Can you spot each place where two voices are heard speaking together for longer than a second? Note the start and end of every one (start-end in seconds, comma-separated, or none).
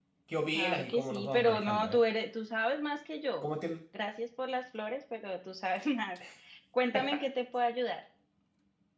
0.5-2.0